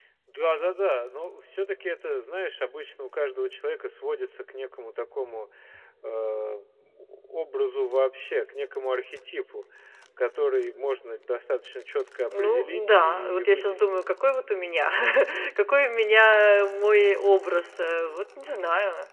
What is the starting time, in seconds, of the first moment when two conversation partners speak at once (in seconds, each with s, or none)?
12.3 s